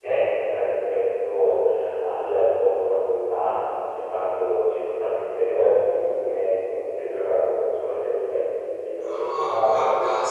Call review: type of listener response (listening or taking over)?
taking over